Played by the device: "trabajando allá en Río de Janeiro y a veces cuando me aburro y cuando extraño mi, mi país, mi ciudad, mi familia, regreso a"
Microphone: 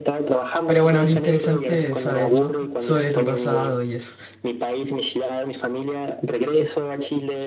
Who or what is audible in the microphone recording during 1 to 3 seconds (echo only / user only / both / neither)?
both